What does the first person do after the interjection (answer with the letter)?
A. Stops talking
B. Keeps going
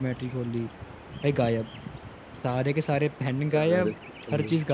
B